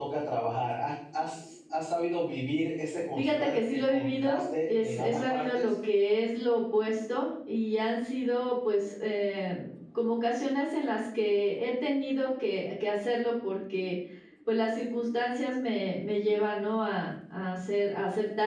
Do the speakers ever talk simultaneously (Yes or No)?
Yes